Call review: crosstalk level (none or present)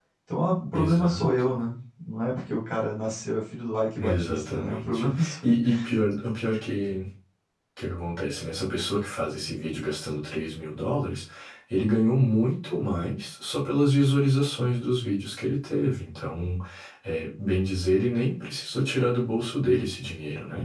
present